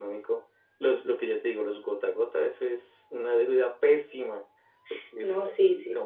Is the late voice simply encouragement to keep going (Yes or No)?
No